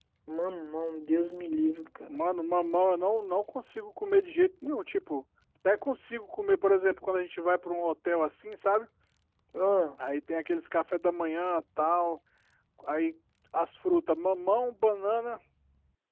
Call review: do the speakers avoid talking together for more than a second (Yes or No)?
Yes